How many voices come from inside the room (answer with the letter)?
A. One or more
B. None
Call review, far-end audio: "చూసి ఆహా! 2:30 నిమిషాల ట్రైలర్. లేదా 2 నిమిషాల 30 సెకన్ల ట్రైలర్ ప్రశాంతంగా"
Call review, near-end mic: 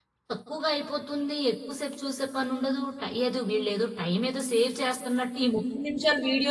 A